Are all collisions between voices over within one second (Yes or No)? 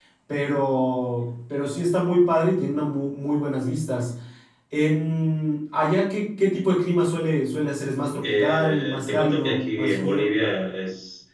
No